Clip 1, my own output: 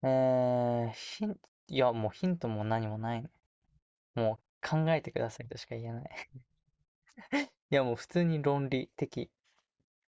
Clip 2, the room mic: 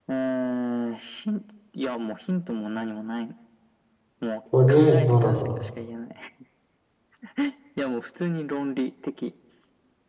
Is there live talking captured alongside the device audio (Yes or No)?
Yes